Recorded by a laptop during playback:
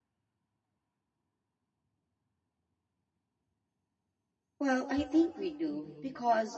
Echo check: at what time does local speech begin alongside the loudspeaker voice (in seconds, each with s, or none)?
4.6 s